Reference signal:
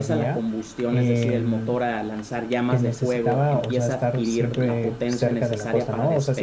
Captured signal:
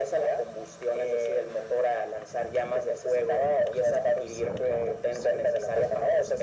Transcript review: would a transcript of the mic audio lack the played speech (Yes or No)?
No